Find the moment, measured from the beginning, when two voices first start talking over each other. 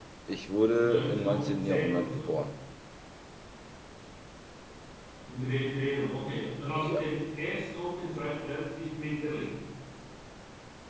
1 s

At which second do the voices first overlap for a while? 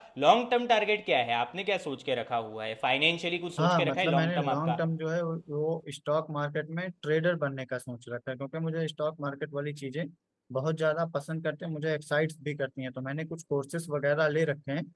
4 s

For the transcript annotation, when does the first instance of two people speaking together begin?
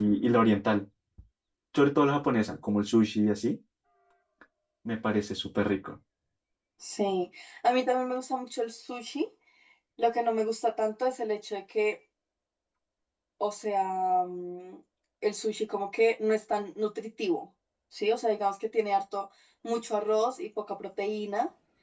none

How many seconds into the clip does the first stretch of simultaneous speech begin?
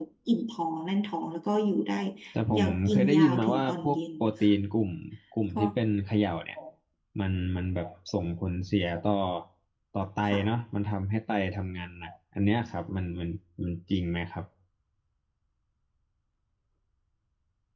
3 s

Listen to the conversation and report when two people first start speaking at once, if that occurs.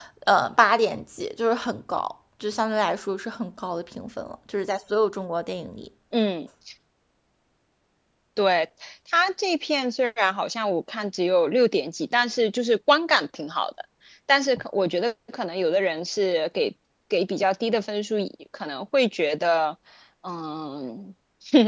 none

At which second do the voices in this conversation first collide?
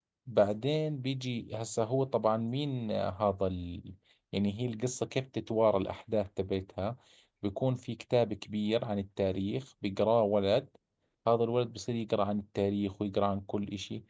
none

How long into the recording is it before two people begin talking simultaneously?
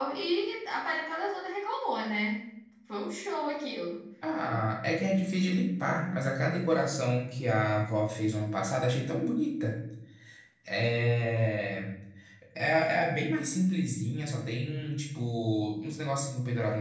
none

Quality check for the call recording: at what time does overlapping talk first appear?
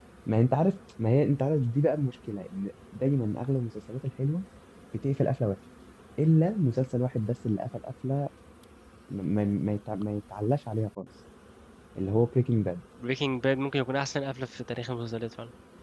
none

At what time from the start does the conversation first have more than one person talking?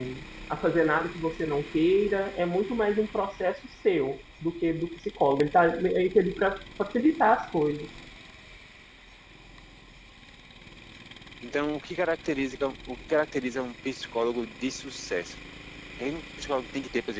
none

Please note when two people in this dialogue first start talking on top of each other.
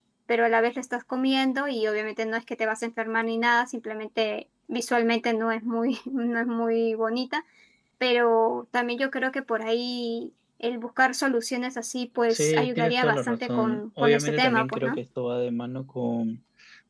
12 s

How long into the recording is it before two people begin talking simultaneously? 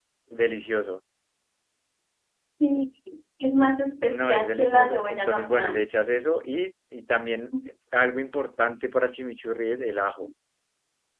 4 s

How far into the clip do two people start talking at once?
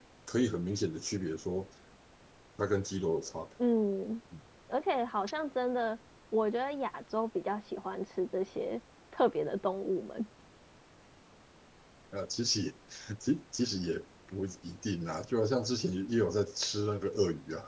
none

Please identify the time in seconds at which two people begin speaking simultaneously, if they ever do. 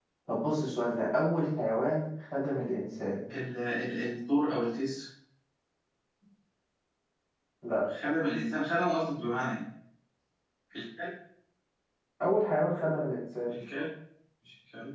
none

